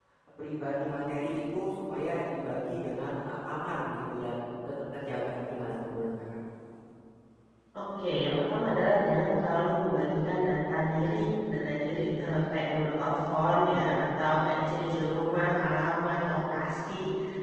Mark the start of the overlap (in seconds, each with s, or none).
none